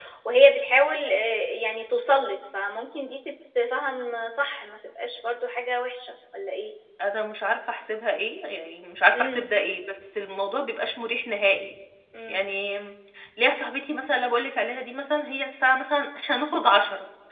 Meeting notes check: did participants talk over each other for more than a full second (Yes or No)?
No